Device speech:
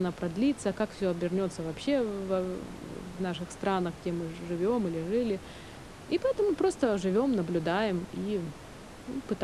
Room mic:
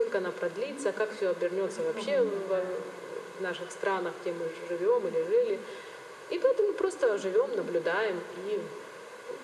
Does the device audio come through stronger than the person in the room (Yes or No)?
Yes